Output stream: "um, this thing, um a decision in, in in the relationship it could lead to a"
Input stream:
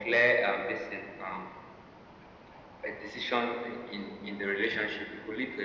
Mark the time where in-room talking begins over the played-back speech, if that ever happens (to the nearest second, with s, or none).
none